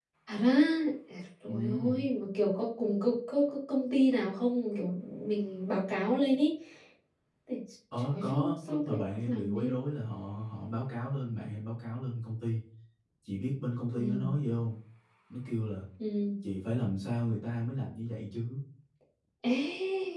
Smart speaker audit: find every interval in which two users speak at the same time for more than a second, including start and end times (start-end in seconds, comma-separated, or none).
8.1-9.7